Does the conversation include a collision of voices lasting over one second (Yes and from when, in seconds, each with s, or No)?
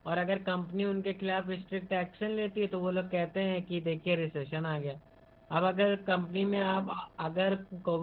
No